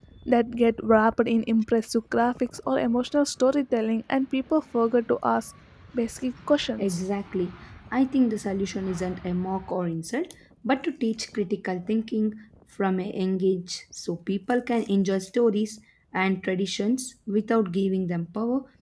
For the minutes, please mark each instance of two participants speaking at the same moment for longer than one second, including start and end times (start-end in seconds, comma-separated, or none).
none